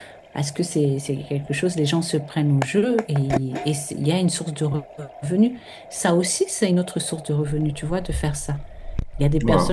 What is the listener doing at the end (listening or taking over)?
listening